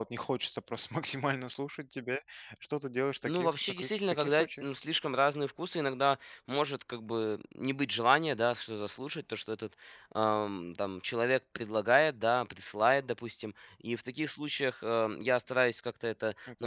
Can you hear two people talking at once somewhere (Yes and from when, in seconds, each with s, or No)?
Yes, from 3.2 s